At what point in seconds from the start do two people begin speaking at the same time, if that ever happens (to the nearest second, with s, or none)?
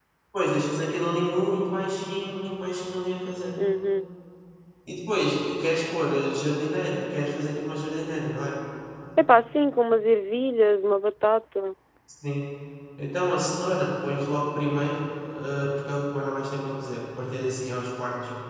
none